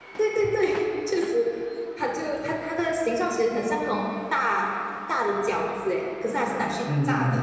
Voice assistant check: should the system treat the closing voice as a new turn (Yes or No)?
Yes